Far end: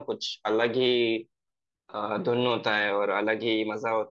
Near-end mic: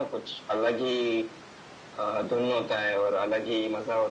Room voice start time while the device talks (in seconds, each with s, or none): none